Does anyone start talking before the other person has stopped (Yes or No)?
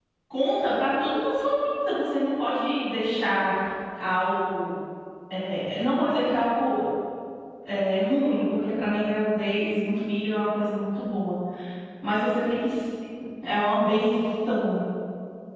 No